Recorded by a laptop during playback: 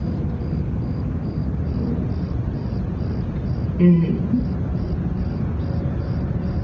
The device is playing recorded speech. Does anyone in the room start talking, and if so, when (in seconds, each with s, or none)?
3.8 s